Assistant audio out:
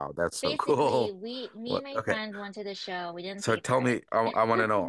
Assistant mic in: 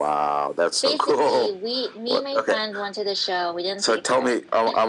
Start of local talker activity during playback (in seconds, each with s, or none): none